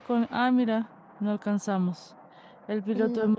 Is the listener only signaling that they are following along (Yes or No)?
Yes